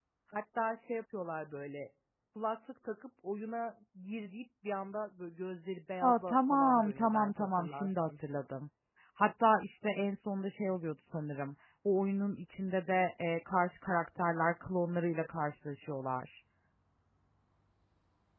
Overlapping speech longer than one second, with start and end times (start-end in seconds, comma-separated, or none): 6.0-8.2